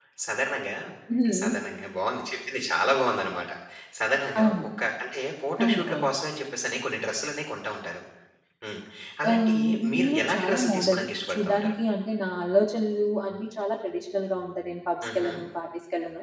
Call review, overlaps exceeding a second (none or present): present